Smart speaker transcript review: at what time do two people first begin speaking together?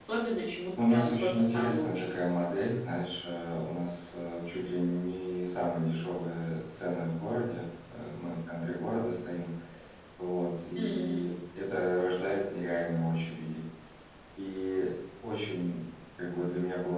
0.8 s

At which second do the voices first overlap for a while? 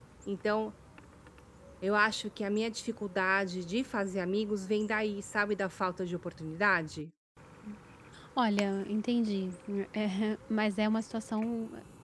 none

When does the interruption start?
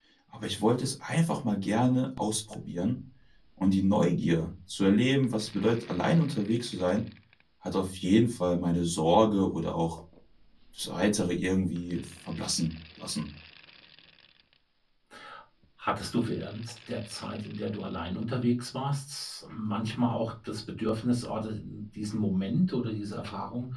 none

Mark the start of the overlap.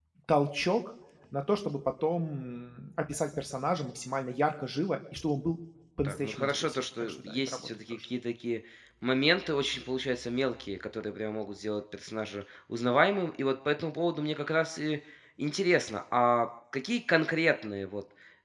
6.0 s

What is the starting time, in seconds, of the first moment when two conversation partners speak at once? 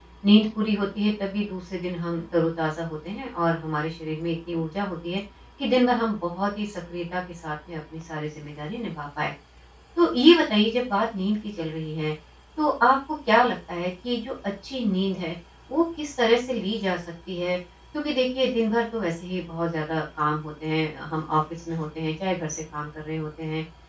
none

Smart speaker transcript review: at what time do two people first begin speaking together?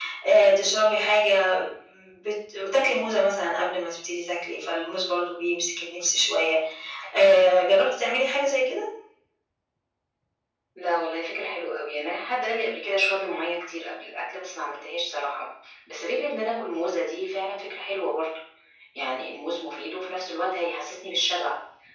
none

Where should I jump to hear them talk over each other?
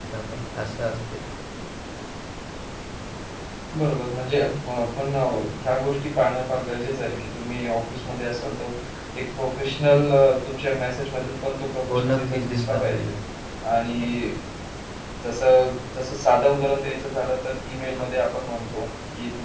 11.9 s

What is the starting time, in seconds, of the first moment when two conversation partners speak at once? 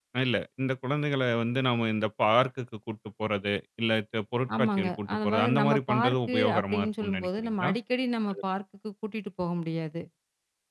4.5 s

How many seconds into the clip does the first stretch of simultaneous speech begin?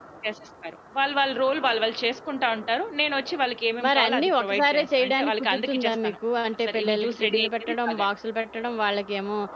3.9 s

